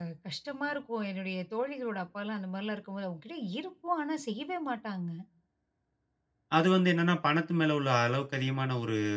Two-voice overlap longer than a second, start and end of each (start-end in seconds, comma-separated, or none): none